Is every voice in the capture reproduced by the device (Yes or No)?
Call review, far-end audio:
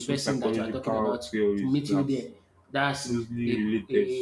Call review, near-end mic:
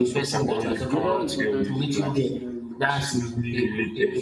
No